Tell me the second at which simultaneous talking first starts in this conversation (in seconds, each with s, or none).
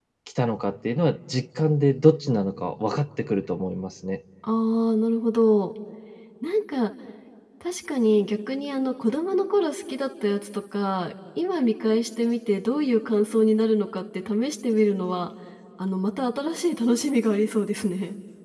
none